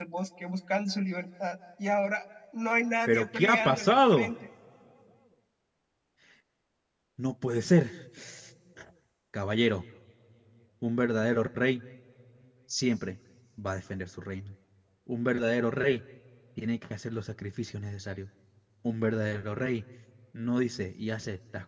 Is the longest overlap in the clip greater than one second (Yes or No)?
Yes